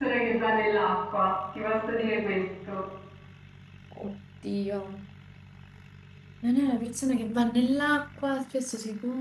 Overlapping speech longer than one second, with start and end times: none

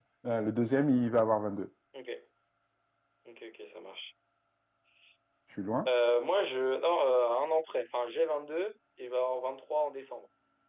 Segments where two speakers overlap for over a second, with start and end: none

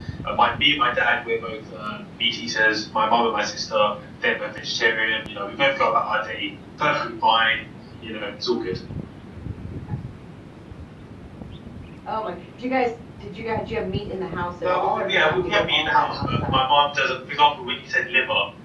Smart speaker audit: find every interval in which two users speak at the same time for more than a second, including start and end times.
14.6-16.6

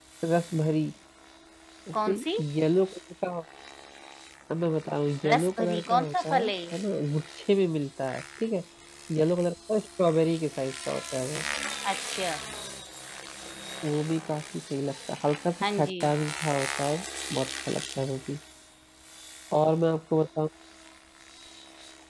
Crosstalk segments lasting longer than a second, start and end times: 5.3-6.7

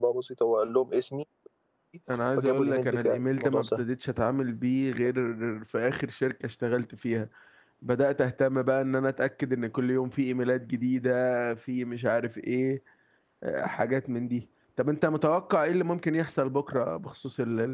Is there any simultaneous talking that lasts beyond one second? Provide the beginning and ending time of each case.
2.4-3.8

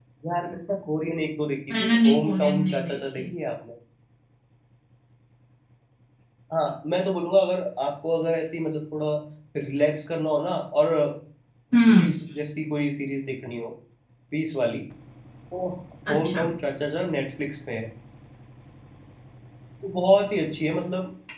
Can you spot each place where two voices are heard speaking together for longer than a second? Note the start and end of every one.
1.7-3.2

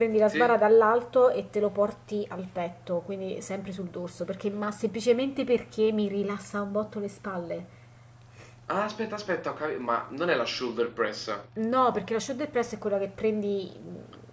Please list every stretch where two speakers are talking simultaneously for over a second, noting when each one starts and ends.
none

